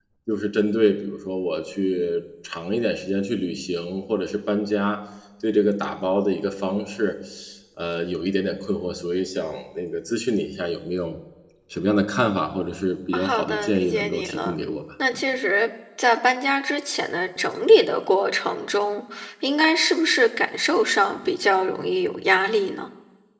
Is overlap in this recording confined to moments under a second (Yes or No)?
No